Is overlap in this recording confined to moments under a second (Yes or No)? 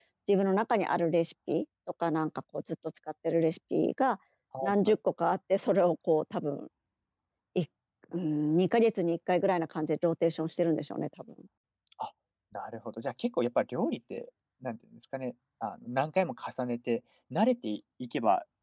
Yes